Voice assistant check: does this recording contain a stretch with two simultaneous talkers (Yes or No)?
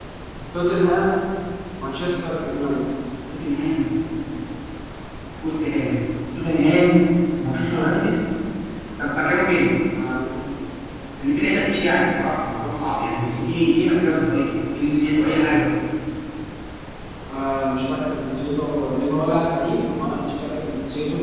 No